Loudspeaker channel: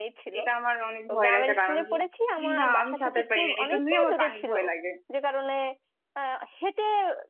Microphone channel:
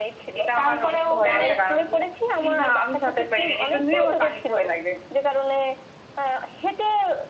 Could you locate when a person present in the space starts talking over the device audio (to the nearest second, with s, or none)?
1 s